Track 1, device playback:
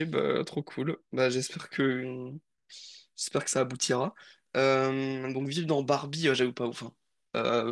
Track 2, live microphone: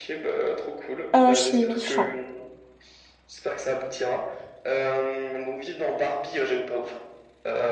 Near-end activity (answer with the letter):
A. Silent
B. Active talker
B